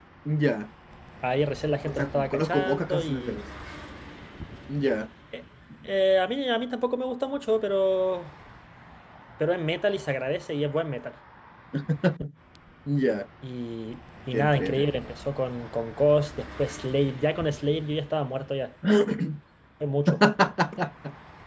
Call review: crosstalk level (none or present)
present